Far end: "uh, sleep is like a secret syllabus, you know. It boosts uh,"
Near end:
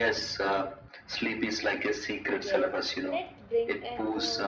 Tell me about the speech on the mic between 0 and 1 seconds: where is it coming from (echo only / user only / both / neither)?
echo only